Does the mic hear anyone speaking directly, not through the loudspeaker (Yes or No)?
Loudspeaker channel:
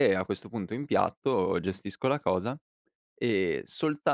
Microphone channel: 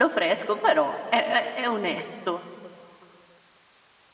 Yes